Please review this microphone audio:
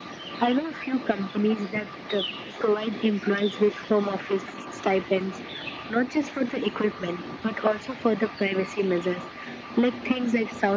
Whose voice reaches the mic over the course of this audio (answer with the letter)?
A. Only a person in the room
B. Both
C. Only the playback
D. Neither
C